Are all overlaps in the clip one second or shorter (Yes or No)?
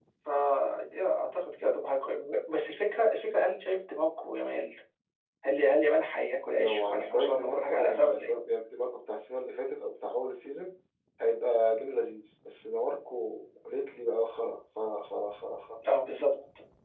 No